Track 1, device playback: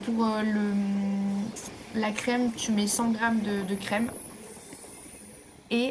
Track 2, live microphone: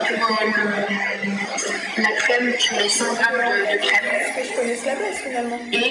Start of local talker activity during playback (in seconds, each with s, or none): 3.0 s